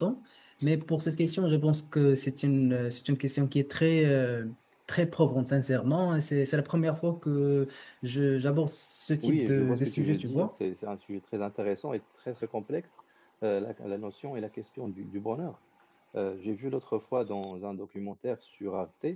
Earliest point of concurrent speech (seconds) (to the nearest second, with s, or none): 9 s